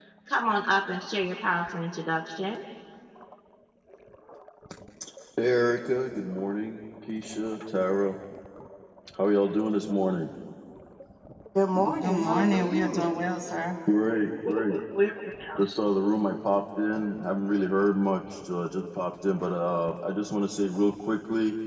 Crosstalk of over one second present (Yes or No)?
Yes